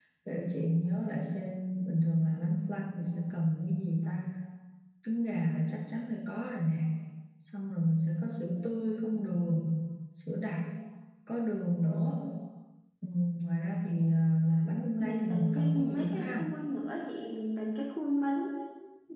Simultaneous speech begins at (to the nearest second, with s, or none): 15 s